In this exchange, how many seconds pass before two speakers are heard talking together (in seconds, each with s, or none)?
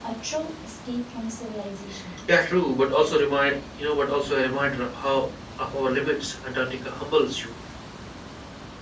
none